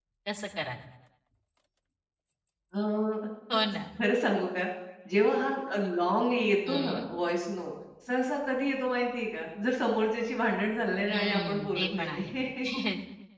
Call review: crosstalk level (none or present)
present